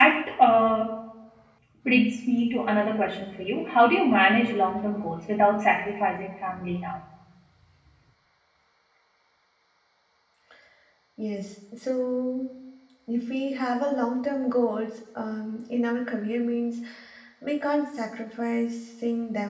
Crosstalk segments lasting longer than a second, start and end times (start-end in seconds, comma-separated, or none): none